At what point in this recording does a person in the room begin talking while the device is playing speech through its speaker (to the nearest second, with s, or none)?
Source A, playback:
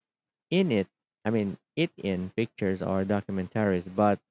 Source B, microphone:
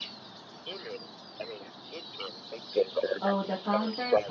3 s